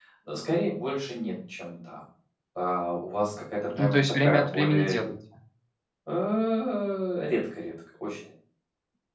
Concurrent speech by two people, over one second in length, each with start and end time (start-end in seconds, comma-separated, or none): 3.8-5.0